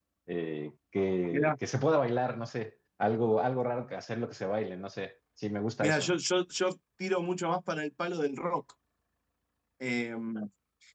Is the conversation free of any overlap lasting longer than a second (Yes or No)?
Yes